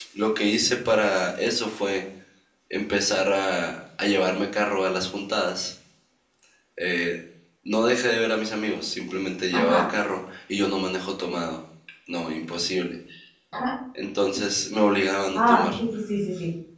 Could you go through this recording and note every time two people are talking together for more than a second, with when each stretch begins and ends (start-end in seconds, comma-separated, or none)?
none